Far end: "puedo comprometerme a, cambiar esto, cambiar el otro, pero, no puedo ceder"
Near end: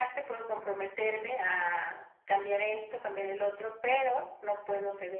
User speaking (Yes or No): No